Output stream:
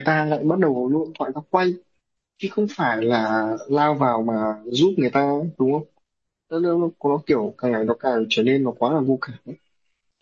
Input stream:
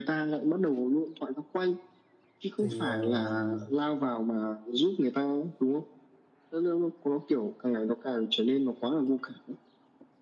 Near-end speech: present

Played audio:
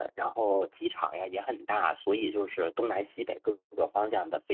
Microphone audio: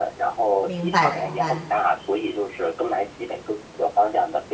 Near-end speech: present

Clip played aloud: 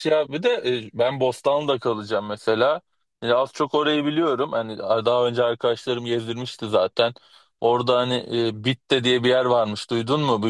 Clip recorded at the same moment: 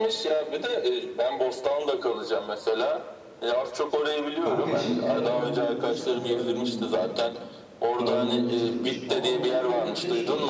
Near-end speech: present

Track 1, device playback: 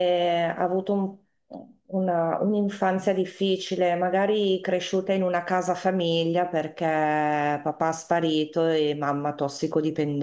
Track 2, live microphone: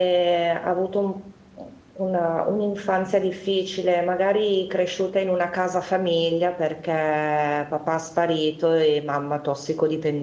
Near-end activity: none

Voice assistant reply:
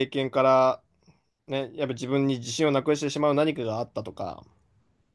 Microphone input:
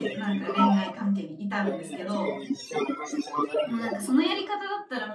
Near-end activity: present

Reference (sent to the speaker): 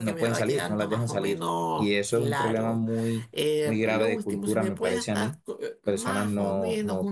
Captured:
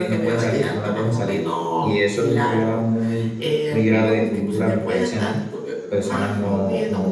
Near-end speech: none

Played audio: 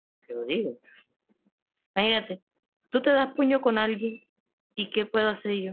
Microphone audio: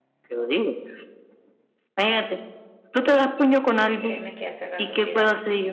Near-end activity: present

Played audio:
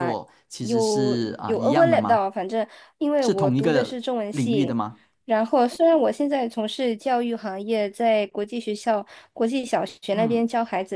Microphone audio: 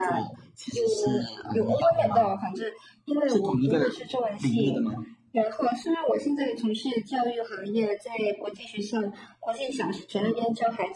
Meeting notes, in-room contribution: none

